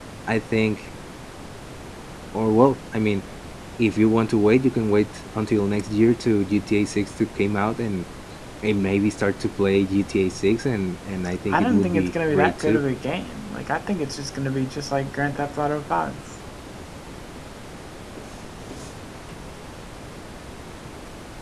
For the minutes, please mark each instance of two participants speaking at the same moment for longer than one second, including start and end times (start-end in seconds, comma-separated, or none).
11.5-12.8